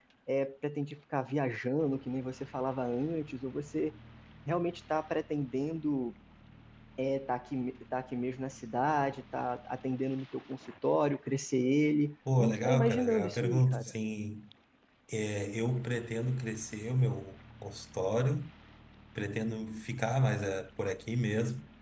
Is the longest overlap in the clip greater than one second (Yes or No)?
Yes